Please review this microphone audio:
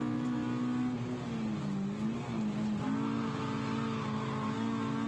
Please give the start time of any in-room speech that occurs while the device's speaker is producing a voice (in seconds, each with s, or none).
none